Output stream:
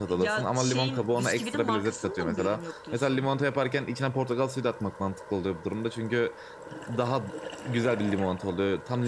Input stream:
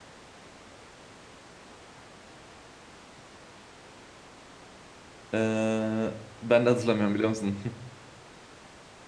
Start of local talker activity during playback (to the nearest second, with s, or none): 5 s